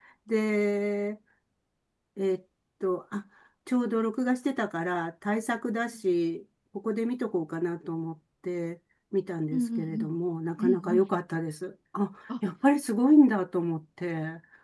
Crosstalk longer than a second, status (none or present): none